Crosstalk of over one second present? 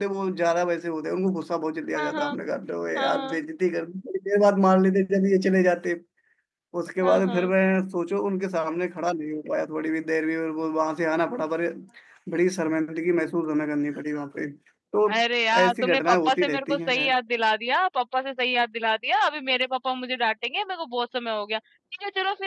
Yes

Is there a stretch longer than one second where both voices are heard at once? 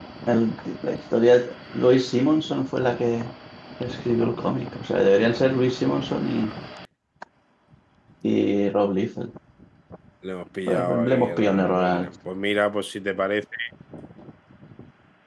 Yes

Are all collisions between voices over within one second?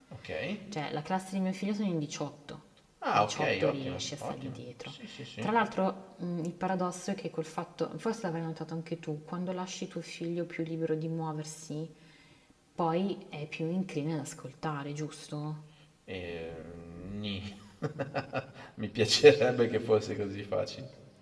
No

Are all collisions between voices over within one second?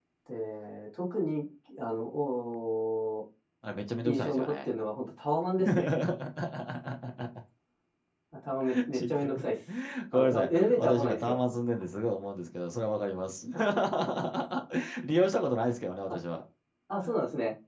No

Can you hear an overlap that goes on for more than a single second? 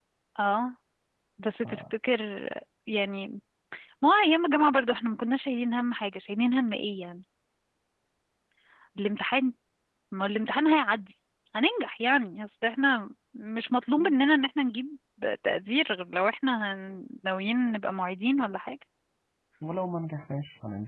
No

